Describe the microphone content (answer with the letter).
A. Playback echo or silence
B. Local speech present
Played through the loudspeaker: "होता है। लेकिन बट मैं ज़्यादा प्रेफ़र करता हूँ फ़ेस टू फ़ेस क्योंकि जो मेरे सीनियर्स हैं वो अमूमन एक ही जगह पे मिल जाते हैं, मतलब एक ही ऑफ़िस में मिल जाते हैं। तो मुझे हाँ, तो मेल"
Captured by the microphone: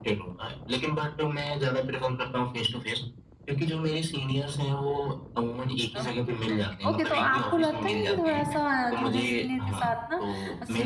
B